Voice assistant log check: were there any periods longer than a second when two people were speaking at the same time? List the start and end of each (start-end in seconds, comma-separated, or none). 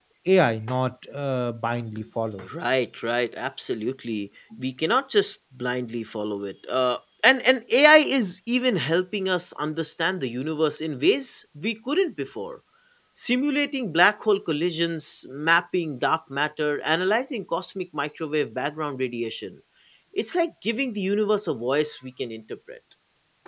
none